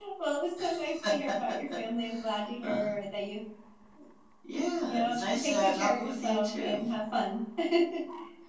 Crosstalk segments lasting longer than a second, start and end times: 4.8-6.8

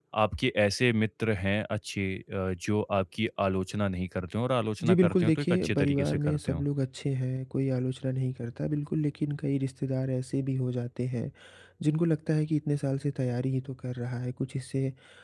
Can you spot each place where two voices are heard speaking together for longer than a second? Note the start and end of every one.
4.8-6.6

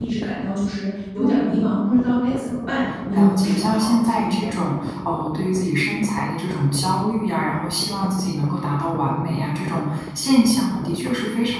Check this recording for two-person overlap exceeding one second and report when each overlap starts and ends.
3.1-4.5

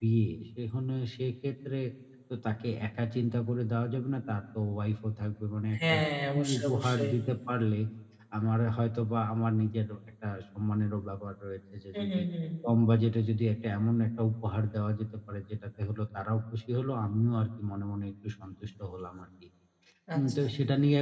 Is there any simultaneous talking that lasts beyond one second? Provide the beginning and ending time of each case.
5.8-7.1

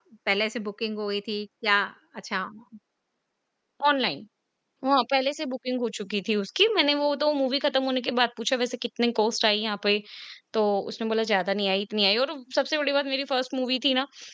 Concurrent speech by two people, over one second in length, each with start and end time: none

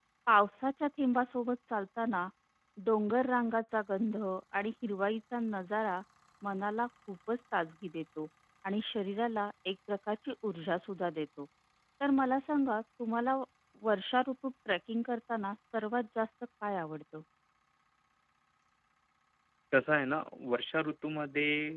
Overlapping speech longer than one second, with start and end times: none

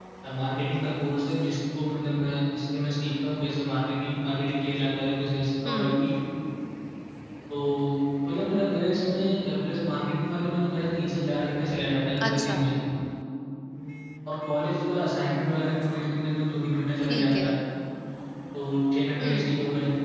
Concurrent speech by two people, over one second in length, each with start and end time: none

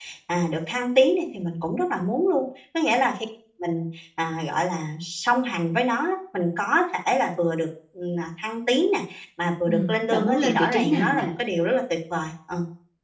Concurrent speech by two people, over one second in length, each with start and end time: 9.7-11.3

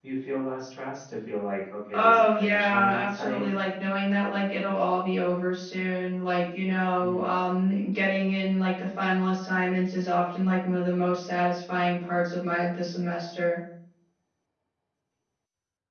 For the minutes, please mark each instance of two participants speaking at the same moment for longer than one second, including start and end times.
1.9-3.4

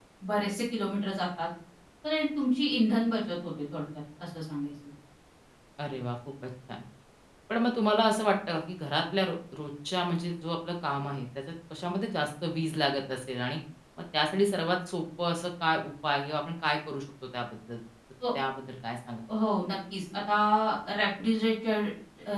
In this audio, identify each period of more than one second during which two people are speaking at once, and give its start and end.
none

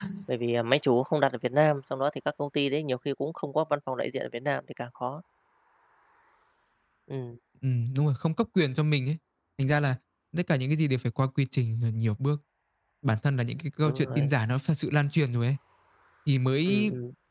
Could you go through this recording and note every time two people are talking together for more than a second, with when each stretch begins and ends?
none

